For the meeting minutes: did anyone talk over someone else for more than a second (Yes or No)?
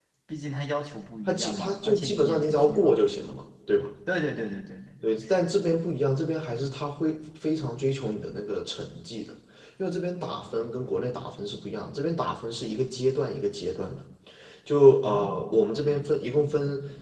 Yes